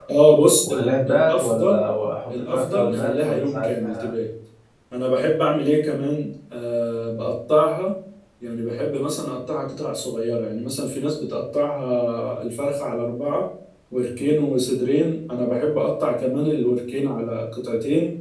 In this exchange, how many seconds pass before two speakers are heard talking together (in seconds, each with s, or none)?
0.6 s